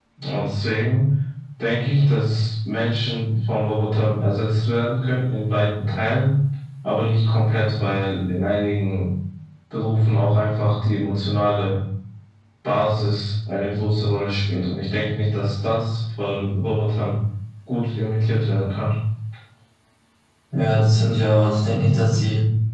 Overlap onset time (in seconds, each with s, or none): none